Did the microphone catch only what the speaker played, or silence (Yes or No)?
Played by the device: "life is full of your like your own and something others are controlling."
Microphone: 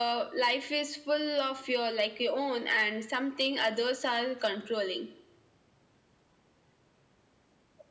Yes